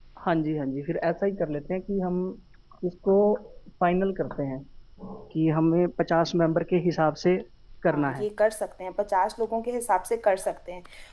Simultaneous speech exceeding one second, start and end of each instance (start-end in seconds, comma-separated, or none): none